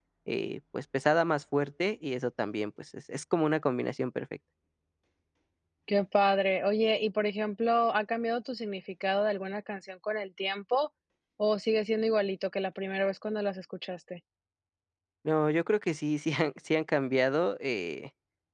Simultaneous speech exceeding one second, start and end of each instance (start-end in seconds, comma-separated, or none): none